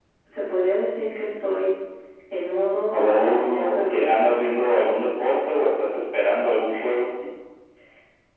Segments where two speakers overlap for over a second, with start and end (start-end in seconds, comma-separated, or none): 2.9-4.4